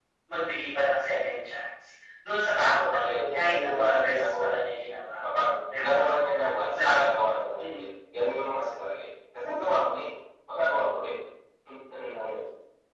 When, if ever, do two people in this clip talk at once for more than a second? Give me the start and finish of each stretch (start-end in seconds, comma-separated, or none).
2.6-4.3